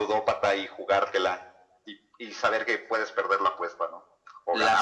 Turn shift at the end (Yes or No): Yes